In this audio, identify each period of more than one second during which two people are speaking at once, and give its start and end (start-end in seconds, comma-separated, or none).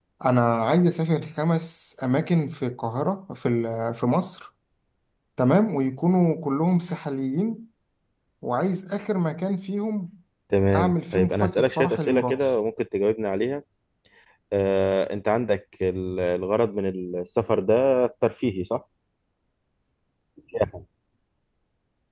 10.7-12.5